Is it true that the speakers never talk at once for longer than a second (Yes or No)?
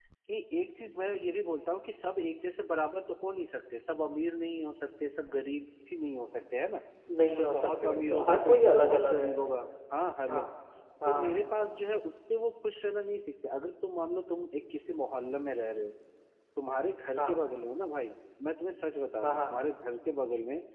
No